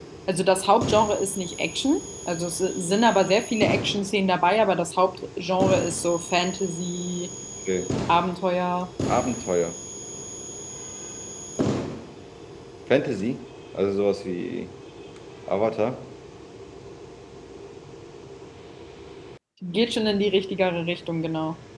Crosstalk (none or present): none